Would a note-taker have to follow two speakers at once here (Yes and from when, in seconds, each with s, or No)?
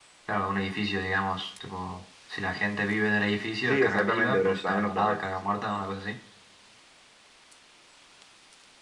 Yes, from 3.7 s